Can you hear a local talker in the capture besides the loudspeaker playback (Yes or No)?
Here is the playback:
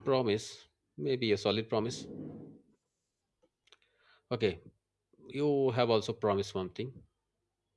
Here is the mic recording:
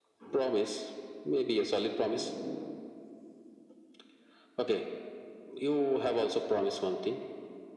No